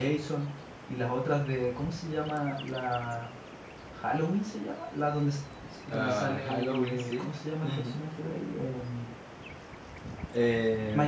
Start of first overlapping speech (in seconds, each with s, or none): 5.9 s